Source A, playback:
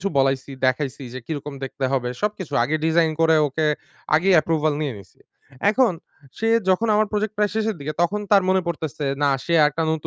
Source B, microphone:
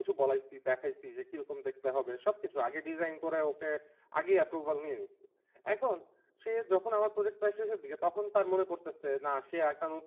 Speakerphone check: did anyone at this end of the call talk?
No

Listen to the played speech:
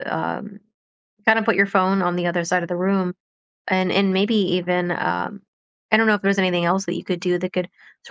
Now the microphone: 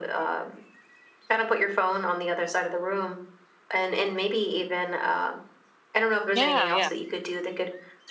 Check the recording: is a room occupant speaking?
Yes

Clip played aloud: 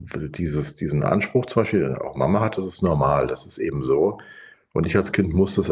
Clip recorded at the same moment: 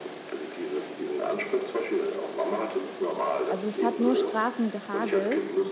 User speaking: Yes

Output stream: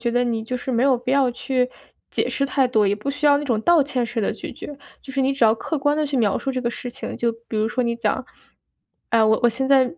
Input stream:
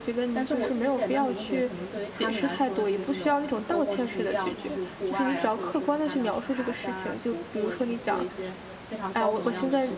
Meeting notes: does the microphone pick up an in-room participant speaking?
Yes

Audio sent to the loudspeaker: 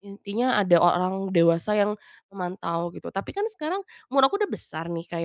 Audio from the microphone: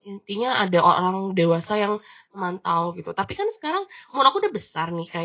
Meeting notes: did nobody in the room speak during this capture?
Yes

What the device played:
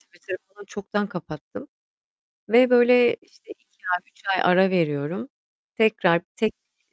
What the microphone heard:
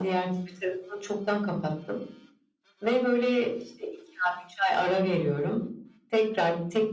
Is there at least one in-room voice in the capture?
No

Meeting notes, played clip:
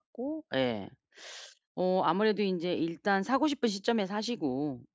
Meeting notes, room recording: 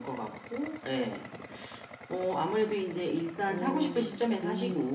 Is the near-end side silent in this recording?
No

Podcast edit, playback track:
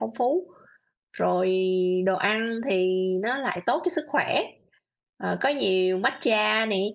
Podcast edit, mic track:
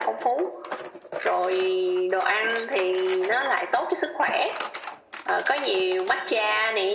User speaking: No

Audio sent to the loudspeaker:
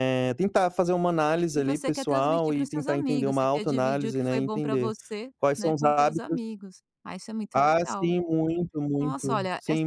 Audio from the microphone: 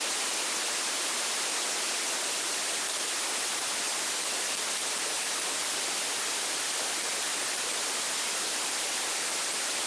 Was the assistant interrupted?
No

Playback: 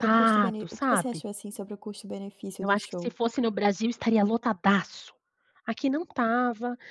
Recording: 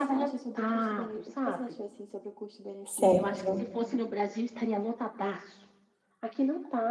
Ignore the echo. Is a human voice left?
Yes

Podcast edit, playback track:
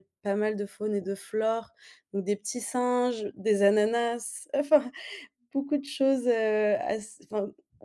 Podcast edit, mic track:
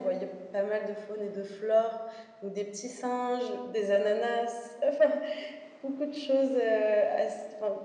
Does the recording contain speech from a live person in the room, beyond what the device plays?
No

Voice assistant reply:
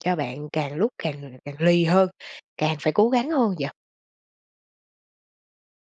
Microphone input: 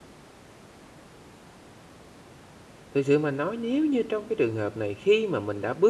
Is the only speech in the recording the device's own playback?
No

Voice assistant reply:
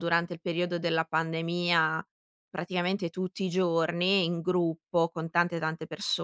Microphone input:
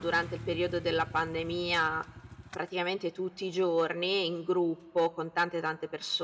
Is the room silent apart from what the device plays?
Yes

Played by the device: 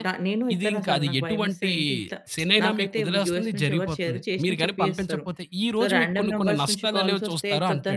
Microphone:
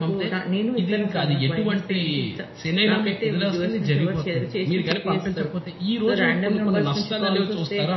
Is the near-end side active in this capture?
No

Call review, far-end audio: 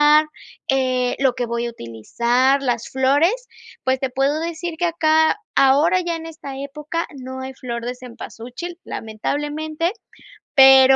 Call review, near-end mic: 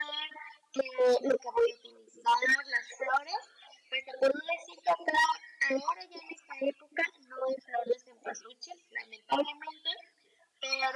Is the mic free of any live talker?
Yes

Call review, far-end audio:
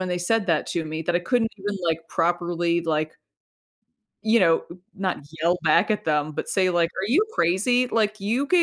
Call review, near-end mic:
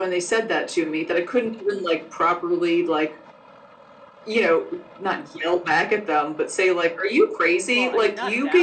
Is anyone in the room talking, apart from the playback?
Yes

